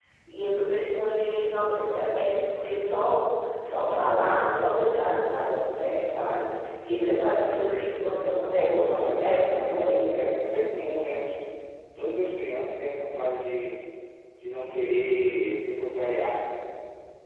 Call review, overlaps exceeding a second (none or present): present